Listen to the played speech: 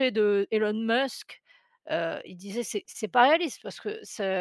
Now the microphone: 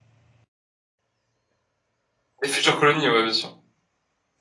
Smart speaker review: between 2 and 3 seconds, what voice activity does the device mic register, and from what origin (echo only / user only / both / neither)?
user only